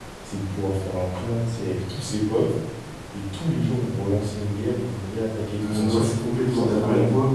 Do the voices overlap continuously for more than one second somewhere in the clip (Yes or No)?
Yes